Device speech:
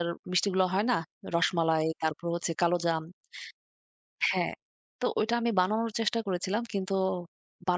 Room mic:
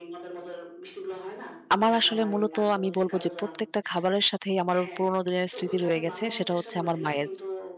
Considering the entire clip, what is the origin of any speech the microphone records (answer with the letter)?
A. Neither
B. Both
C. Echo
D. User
B